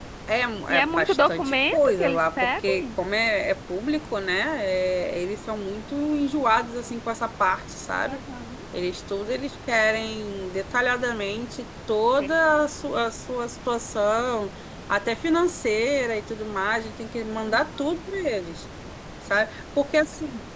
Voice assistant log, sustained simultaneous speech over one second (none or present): present